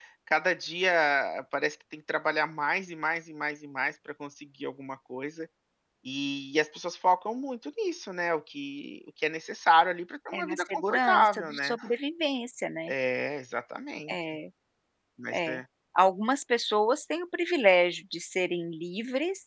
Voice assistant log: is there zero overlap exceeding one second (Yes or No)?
No